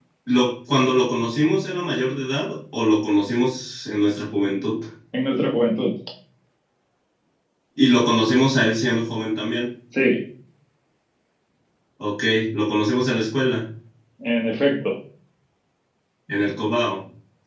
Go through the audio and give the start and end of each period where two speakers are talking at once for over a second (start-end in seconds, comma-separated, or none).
none